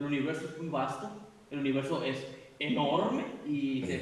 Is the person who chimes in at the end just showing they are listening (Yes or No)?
Yes